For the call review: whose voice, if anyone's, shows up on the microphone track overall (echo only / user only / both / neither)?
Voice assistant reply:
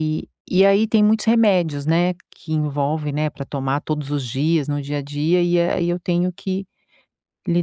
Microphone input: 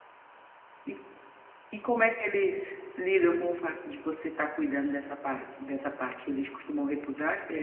user only